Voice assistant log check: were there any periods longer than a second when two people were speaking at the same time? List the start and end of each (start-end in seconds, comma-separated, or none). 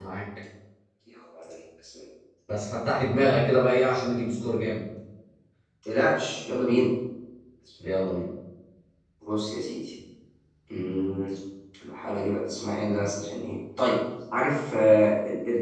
none